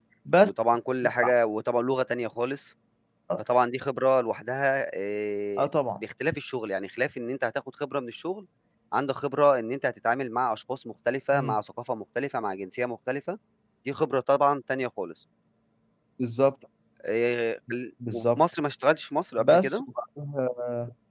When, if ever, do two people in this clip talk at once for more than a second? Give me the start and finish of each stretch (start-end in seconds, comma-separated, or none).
none